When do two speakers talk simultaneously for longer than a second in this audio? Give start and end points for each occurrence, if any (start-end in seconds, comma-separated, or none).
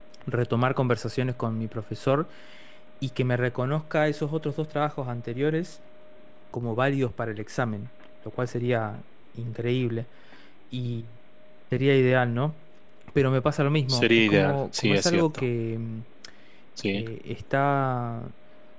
13.9-15.4